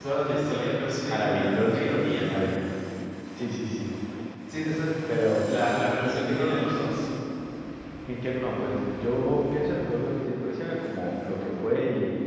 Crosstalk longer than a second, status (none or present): present